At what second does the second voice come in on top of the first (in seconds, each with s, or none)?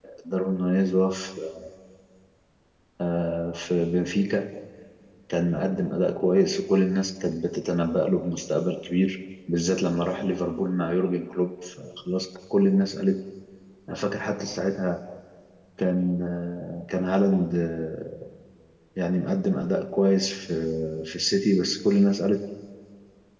none